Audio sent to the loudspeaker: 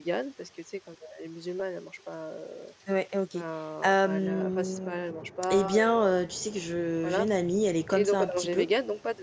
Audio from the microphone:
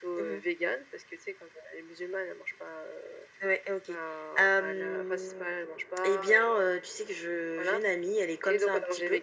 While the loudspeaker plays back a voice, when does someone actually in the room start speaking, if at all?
none

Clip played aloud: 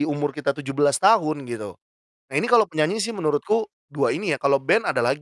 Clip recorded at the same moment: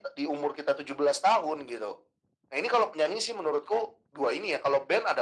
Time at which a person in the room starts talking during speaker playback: none

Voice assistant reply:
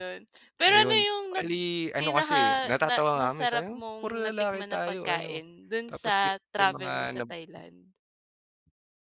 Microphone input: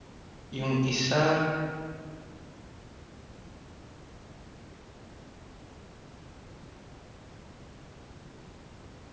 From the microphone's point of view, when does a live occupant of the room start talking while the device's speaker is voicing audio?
0.5 s

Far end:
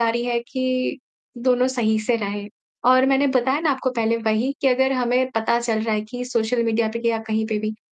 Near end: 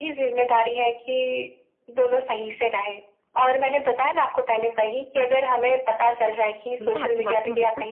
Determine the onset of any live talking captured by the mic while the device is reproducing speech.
6.0 s

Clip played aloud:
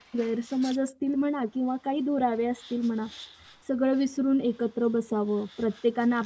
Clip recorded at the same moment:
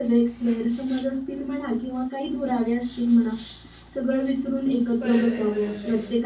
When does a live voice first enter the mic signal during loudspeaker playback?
5.0 s

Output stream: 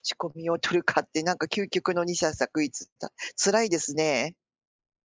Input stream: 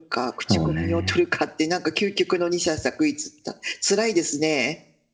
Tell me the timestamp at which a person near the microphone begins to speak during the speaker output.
0.5 s

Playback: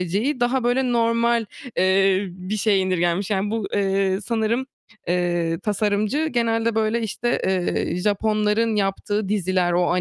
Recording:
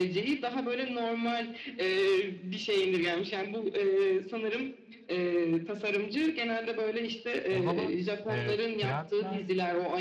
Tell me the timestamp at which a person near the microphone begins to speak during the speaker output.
7.5 s

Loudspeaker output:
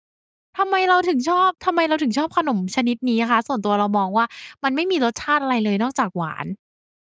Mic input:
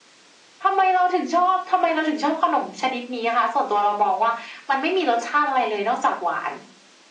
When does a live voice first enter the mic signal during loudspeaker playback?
none

